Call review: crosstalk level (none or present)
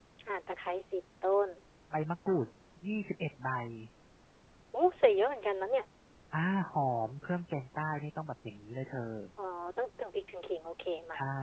none